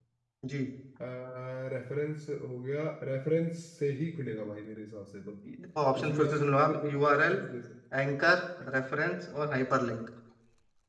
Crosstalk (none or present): present